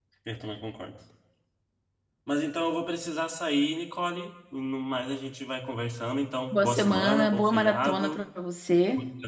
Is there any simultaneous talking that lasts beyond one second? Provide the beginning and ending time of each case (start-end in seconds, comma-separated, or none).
6.5-8.2